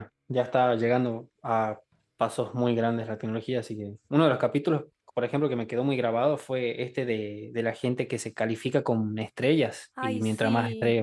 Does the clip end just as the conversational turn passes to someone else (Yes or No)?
No